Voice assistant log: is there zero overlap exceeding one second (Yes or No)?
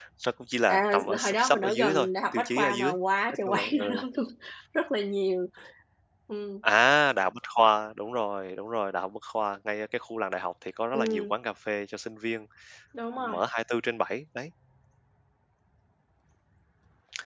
No